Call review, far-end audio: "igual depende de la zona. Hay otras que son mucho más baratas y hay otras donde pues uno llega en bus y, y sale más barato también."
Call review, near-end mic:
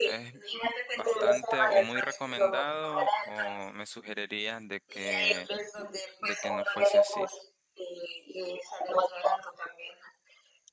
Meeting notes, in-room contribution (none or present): present